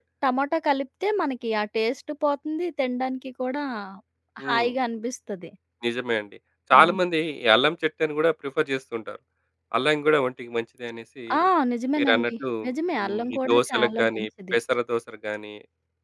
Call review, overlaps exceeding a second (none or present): present